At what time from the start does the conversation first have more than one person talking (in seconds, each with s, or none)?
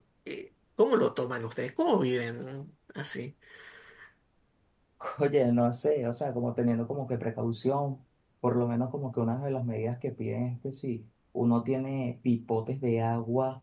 none